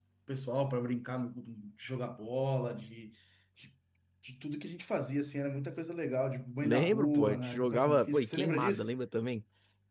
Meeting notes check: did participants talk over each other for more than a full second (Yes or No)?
Yes